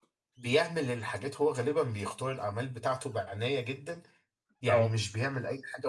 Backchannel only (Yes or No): Yes